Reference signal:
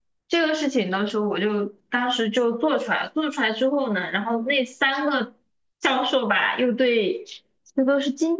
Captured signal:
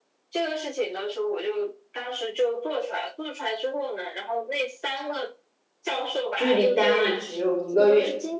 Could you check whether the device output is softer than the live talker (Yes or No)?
Yes